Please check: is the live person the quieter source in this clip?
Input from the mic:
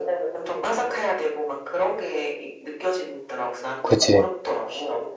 No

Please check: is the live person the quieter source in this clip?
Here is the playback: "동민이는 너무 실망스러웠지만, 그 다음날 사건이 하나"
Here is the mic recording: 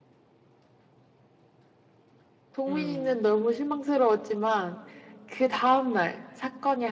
Yes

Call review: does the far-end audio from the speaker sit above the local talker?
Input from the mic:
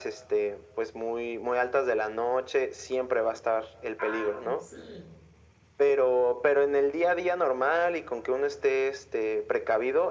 Yes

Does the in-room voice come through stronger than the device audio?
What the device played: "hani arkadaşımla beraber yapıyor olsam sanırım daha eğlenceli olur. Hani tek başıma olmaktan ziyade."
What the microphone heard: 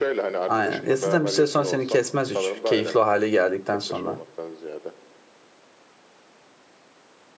Yes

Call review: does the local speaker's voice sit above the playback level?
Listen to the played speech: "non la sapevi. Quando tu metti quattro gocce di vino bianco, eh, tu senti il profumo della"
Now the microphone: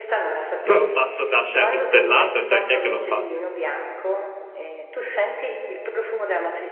Yes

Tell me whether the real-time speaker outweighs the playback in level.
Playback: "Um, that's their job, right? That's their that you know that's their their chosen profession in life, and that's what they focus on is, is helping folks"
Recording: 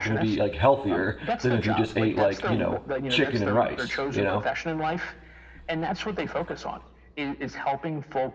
Yes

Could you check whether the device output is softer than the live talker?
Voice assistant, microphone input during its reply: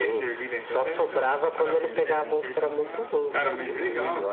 No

